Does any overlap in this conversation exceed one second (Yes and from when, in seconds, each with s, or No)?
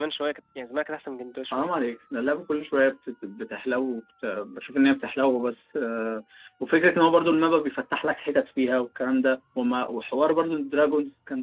No